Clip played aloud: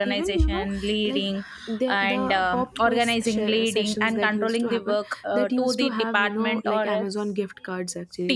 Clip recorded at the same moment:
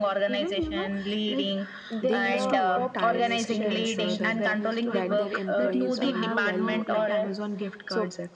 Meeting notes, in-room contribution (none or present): present